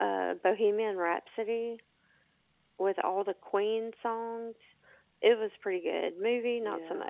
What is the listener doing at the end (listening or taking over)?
taking over